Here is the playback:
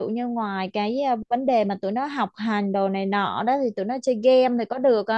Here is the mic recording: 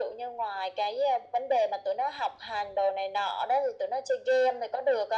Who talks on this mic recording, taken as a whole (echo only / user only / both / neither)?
echo only